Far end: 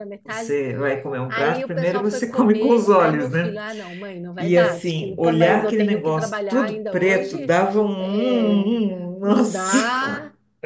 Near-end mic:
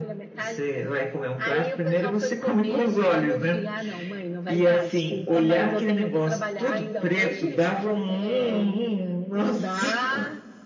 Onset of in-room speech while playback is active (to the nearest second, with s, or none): none